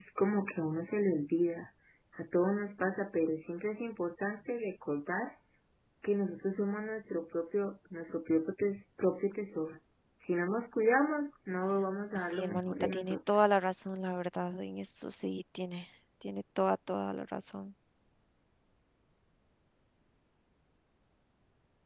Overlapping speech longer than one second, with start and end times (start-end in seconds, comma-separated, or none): 12.2-13.5